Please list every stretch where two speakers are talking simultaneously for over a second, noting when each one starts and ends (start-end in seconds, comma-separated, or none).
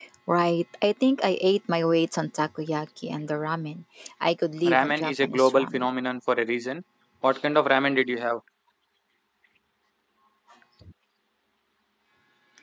4.6-5.9